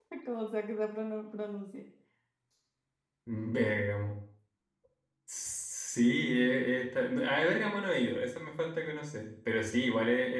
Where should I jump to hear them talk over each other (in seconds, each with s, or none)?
none